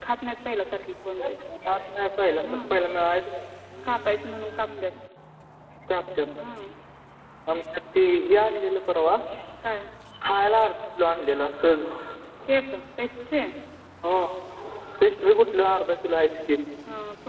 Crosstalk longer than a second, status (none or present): none